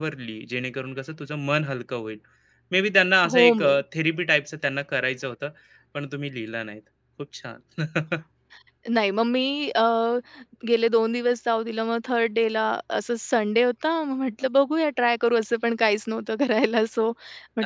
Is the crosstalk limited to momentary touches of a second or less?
Yes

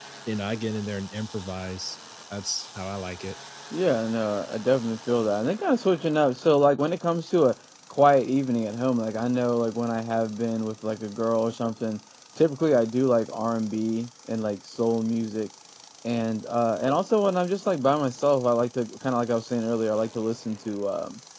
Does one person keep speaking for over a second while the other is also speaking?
No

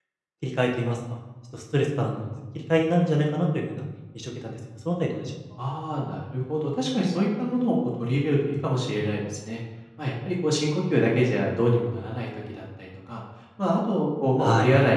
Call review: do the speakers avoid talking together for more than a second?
Yes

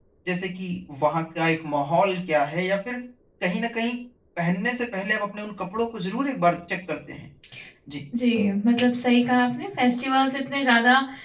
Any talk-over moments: No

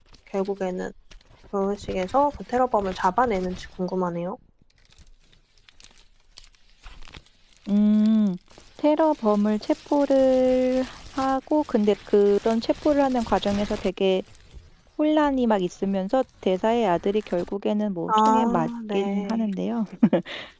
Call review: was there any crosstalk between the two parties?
Yes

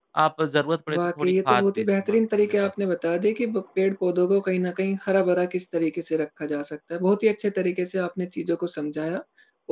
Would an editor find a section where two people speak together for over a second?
Yes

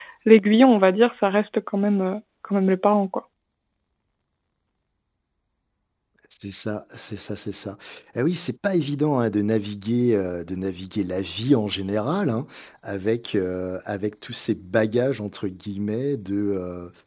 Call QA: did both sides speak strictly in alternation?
Yes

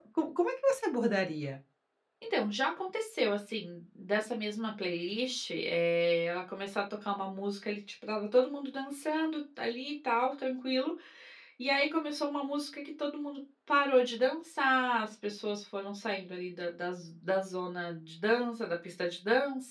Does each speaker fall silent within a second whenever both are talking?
Yes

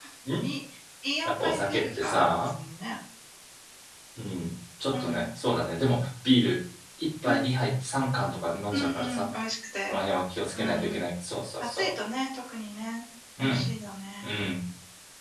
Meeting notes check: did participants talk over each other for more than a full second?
Yes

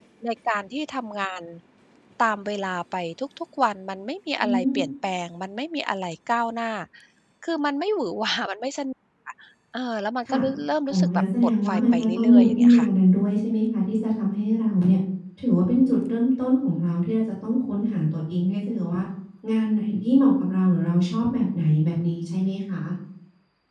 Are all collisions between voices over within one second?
No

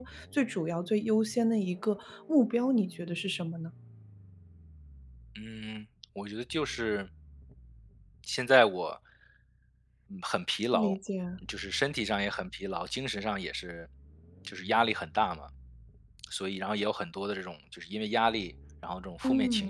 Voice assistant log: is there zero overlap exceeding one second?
Yes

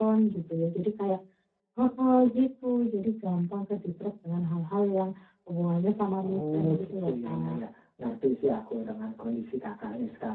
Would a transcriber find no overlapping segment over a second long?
No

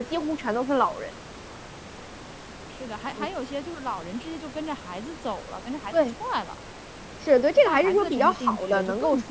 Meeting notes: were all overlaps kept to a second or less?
No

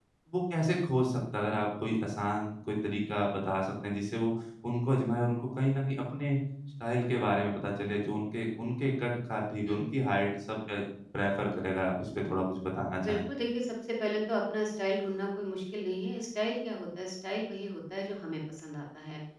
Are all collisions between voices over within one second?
Yes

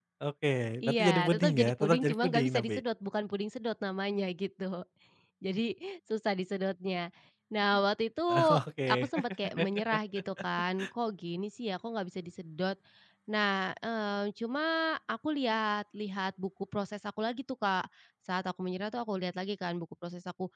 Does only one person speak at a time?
No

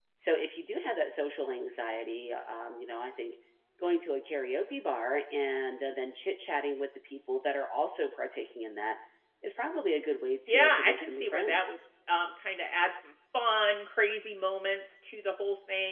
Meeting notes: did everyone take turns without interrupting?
No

